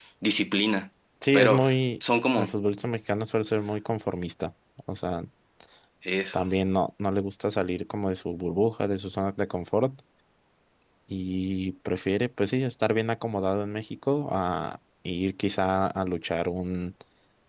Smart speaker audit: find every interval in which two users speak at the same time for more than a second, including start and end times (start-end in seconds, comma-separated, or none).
none